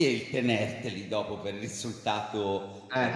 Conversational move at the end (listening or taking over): listening